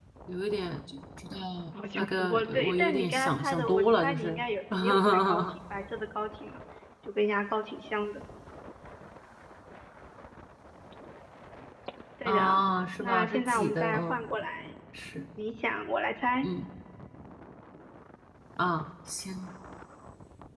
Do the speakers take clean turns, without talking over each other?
No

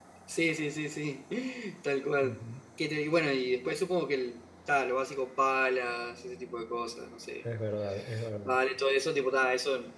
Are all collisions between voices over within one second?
Yes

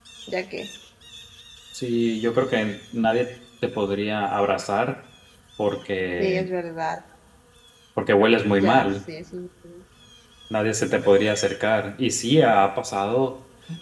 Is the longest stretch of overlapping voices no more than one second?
Yes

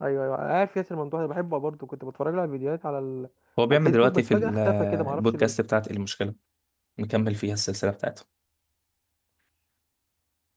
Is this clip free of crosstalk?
No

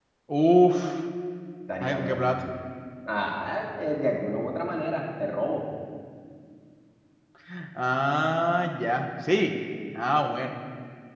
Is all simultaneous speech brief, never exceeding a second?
Yes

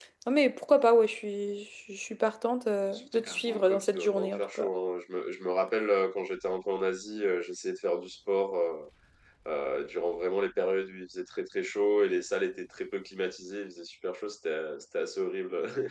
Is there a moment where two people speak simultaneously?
Yes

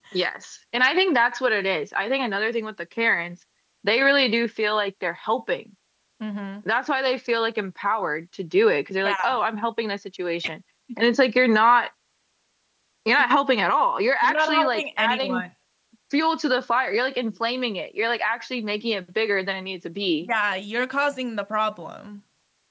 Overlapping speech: Yes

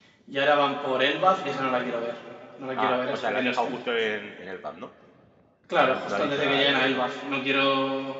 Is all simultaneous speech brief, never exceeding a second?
No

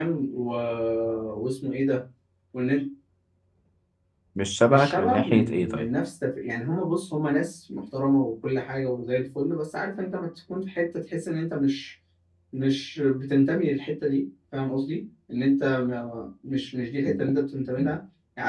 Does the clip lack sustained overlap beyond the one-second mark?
No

